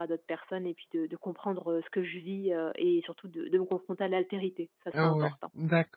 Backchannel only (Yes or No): No